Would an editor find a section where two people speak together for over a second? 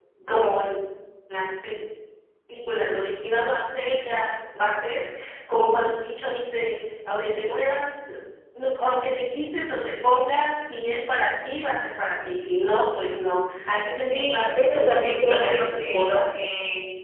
Yes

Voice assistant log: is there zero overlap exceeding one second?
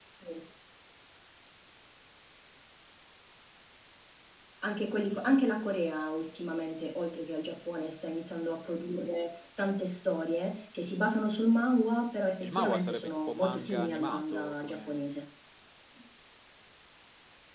No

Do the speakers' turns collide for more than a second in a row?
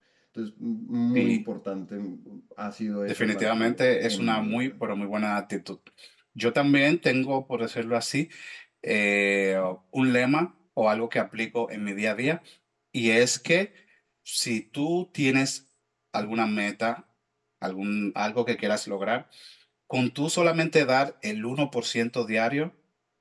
Yes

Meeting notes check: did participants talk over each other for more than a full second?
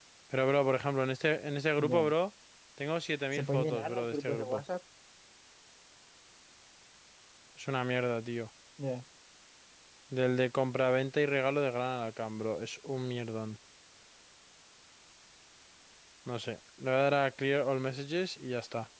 Yes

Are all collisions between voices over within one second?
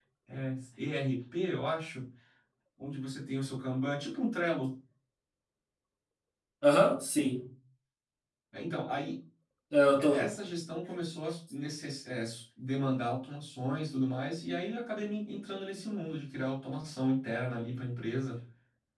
Yes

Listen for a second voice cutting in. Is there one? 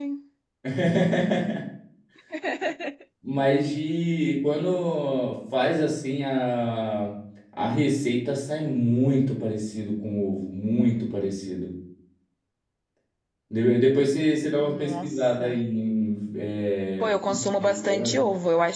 Yes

